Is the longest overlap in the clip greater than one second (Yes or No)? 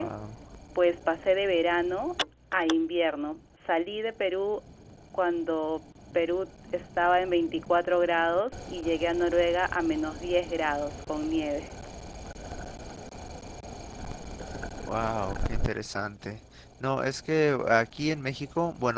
No